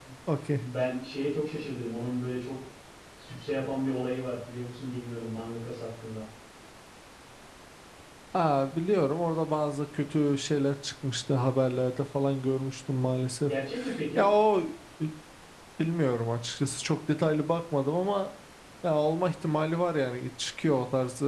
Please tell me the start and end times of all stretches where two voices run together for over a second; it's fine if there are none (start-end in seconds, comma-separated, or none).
none